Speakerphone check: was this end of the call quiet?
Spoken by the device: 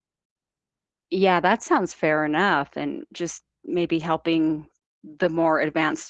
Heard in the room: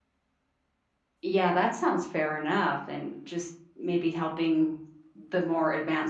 Yes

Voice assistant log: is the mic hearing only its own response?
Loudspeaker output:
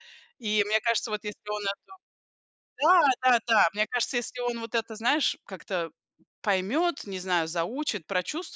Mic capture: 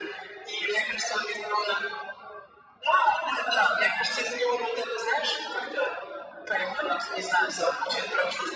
Yes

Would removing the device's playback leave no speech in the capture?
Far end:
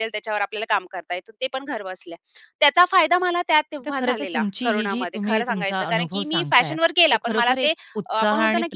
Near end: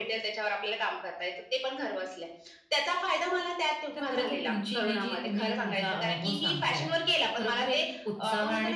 Yes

